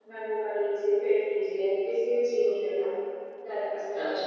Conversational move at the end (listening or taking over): taking over